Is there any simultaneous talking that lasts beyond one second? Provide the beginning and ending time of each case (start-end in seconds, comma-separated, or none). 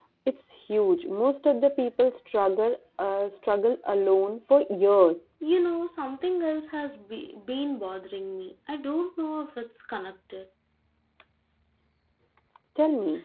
none